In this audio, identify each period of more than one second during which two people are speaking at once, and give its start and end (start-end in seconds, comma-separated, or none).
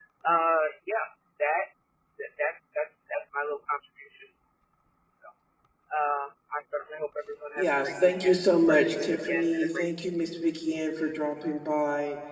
7.6-9.9